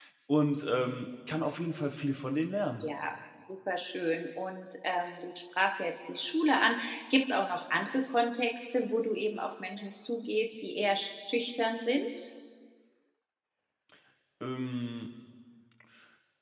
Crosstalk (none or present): none